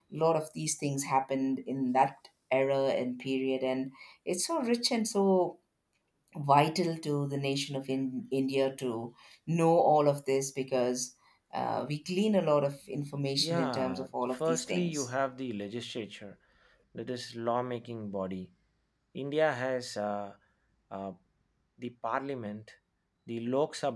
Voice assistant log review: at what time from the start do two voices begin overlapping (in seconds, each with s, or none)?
13.4 s